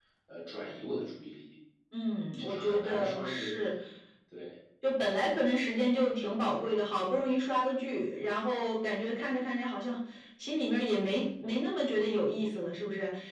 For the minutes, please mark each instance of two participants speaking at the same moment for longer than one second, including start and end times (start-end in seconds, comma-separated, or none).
2.0-3.5